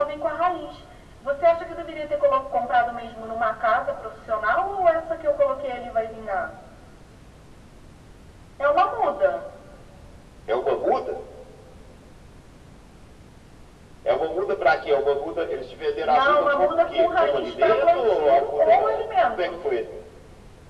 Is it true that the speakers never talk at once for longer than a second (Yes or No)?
No